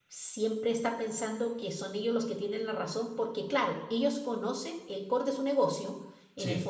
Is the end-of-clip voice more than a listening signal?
No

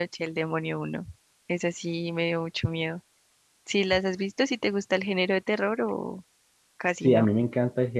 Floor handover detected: Yes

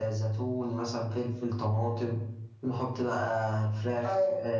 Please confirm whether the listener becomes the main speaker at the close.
No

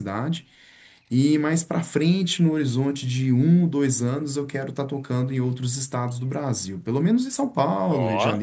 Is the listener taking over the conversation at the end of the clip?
No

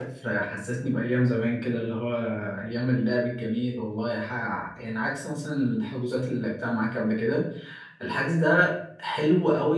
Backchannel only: Yes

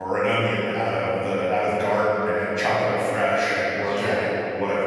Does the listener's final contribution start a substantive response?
No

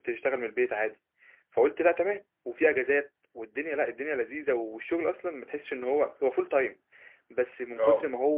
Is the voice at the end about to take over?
No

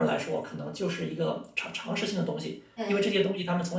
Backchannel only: Yes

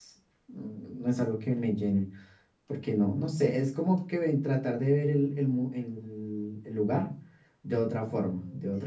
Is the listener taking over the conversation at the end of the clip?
Yes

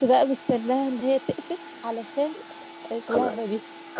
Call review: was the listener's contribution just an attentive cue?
No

